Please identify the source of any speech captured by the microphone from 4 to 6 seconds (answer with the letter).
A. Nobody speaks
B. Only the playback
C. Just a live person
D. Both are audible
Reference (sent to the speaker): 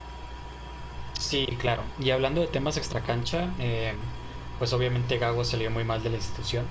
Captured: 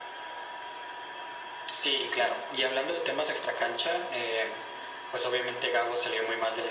B